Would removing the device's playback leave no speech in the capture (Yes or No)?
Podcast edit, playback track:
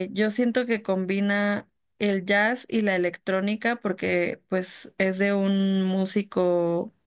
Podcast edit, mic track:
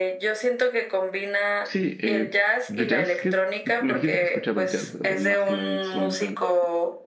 No